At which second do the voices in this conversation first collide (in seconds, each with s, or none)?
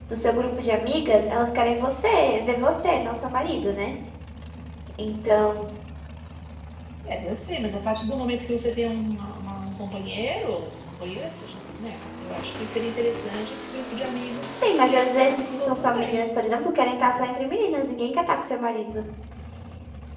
14.6 s